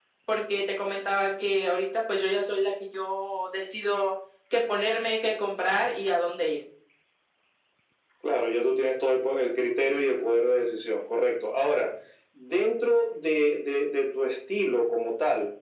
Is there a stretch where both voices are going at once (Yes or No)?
No